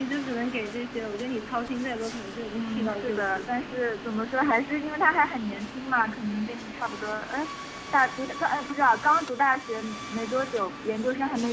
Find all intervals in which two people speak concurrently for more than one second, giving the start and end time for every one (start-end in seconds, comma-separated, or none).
2.5-3.7